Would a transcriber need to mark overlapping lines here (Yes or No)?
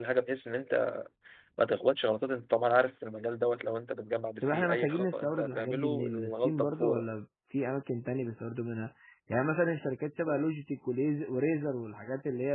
Yes